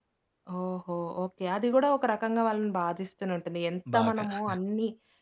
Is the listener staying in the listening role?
Yes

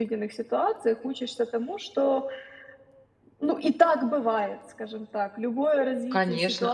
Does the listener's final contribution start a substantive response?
Yes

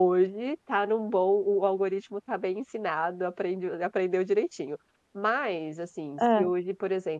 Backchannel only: Yes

